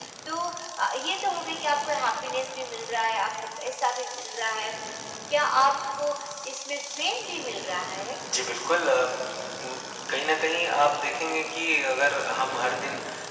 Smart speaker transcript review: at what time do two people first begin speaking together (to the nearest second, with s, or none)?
none